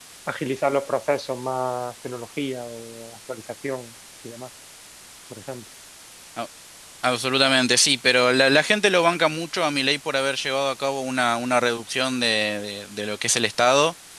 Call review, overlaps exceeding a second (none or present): none